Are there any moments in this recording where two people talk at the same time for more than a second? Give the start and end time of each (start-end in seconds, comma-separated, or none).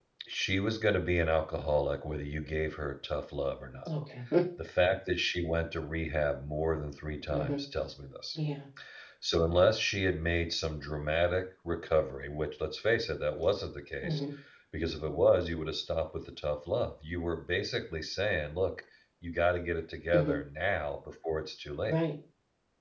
none